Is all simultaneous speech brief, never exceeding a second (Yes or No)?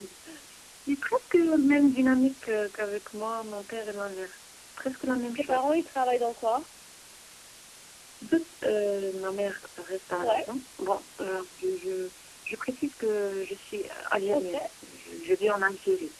Yes